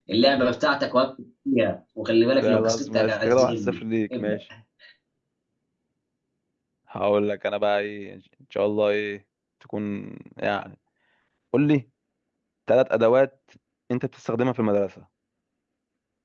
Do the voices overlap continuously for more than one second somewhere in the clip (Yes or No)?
Yes